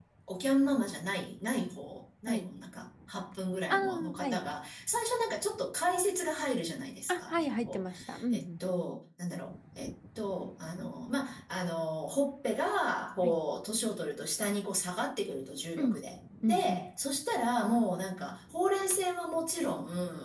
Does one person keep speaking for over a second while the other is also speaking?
Yes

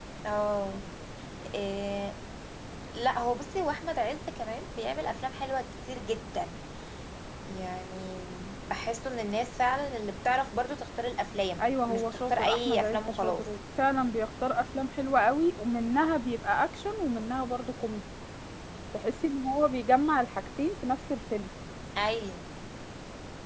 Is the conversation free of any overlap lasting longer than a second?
No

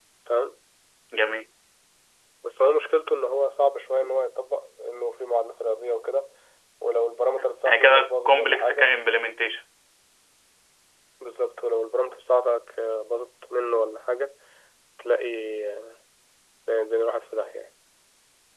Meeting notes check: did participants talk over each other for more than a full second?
Yes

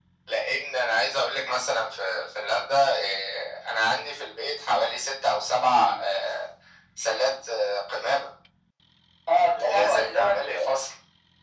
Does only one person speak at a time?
No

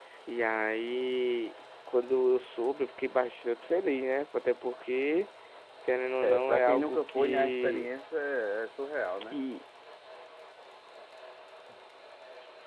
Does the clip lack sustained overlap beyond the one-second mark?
No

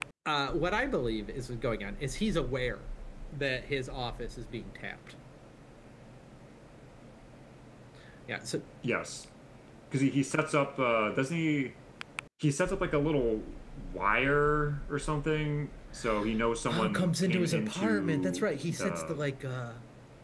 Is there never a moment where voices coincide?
No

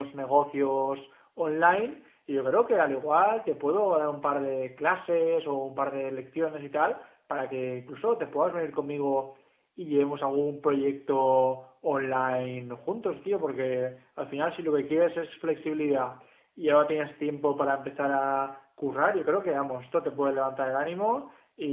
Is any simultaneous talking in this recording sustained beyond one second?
No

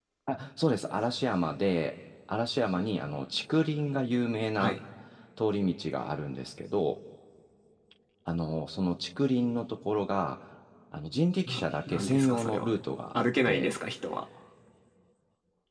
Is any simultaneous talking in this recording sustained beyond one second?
Yes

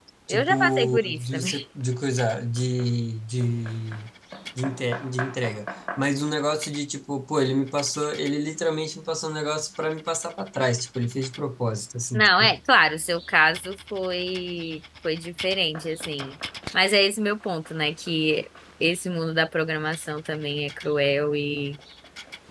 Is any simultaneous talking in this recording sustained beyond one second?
Yes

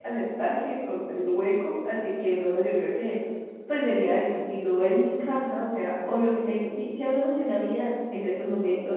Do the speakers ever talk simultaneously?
No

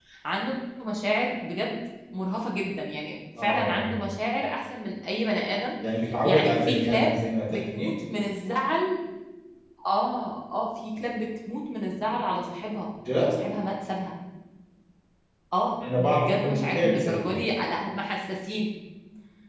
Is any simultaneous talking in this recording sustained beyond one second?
Yes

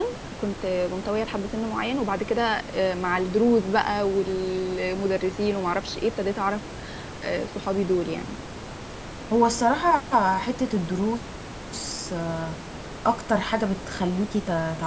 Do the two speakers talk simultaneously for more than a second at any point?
No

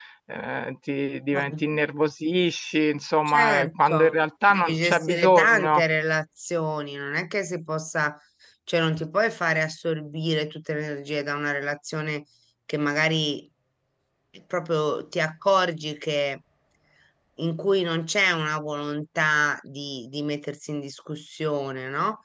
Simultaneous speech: Yes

